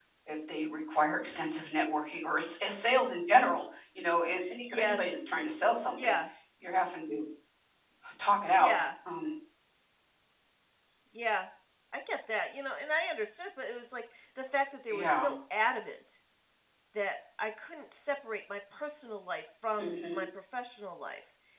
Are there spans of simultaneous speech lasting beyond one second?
No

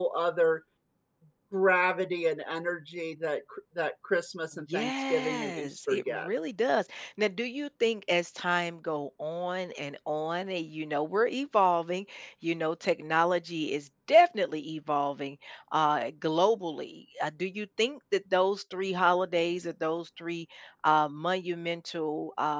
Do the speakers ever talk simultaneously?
Yes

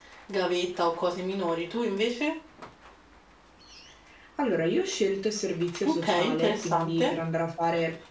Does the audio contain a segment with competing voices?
Yes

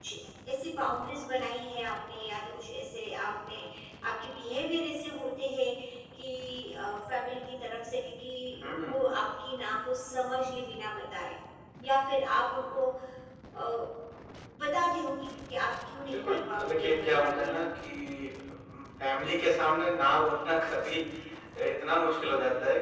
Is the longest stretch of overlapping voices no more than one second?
No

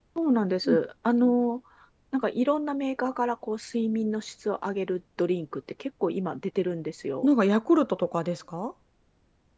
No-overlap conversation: Yes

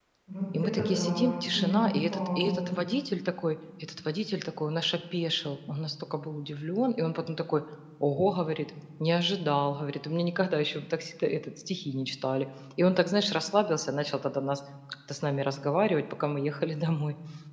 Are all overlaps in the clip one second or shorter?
No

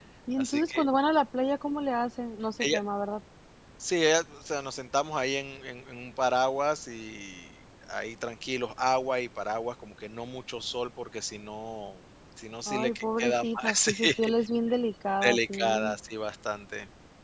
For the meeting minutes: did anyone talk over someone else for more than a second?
Yes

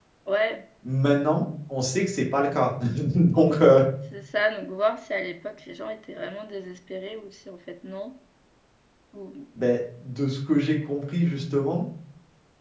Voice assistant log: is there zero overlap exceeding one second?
Yes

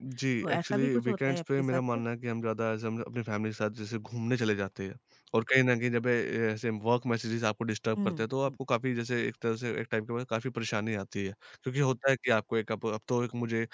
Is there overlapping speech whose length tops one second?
Yes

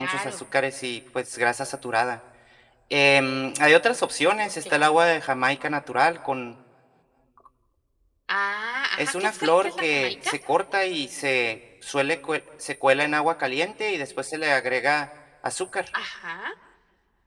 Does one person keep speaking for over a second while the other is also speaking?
Yes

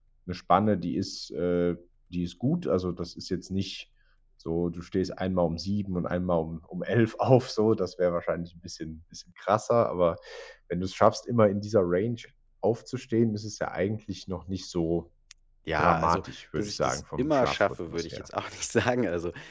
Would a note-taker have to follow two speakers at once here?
Yes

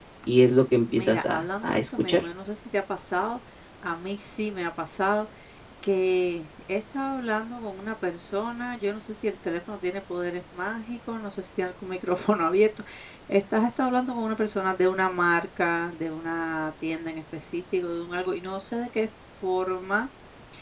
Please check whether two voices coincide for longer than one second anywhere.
Yes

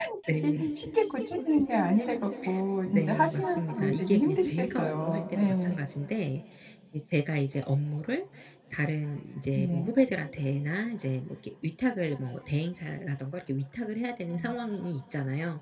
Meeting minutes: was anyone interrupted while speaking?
Yes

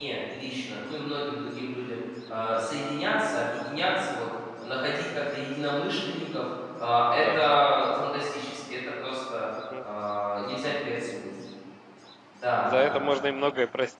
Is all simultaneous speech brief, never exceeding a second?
Yes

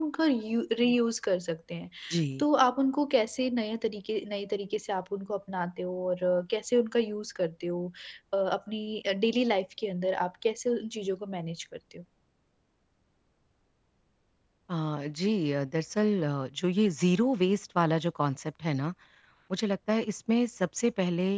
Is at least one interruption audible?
No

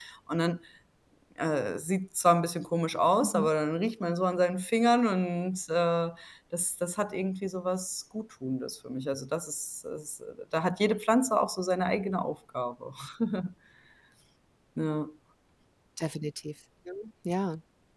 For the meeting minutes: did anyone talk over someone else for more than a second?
No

